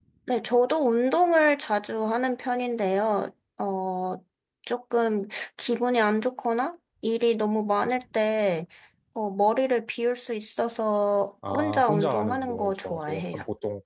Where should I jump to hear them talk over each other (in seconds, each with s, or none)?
11.4 s